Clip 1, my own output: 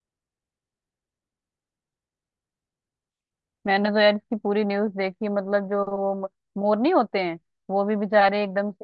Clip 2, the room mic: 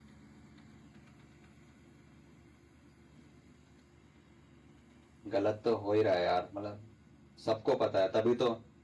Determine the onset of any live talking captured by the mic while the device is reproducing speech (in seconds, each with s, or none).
5.3 s